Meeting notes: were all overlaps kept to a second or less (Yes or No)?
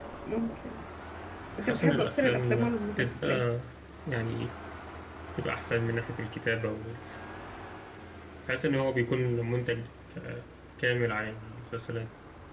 No